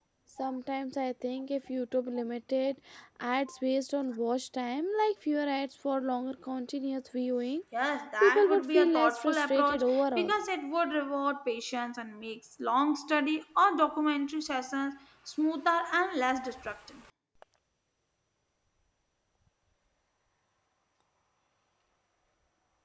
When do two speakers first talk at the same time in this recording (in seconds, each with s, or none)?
8.2 s